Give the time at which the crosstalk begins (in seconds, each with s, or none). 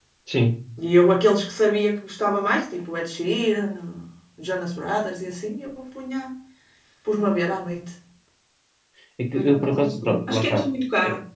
9.3 s